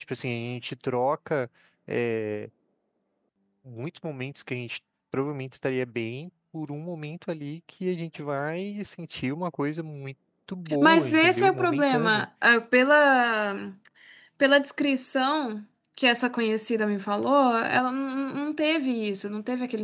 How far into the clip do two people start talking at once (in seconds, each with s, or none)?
10.7 s